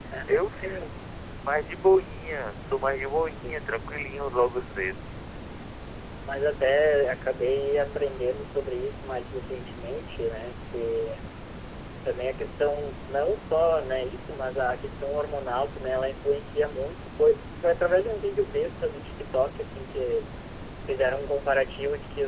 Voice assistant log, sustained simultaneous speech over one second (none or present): none